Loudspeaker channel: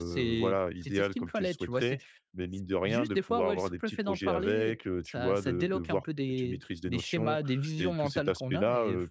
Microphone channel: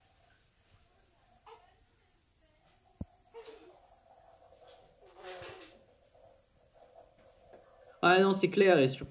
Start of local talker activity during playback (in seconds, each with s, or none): 8.0 s